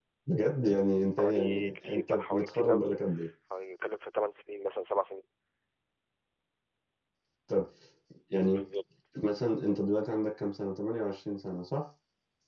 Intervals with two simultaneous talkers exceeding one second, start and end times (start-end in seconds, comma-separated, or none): 1.2-2.9